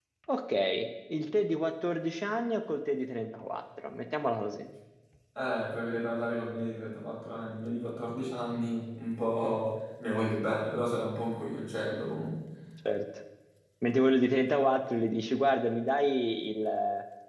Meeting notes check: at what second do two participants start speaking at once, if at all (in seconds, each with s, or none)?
none